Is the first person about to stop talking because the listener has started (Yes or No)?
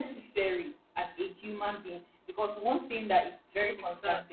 No